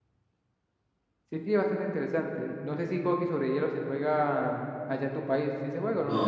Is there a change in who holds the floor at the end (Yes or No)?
Yes